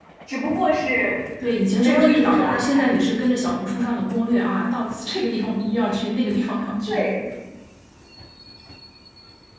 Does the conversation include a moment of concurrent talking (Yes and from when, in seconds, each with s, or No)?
Yes, from 1.8 s